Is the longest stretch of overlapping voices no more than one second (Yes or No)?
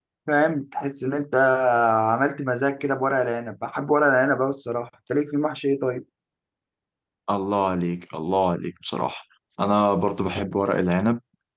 Yes